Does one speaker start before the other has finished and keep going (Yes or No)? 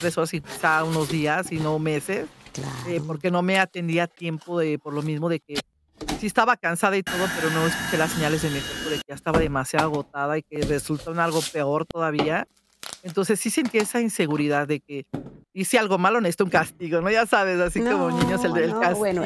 Yes